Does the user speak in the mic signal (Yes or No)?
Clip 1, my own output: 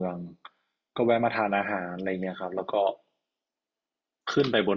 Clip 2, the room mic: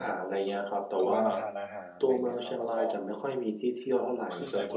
Yes